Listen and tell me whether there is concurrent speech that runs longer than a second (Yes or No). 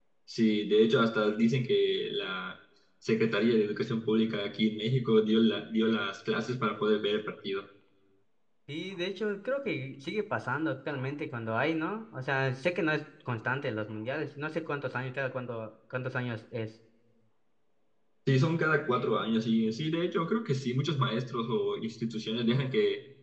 No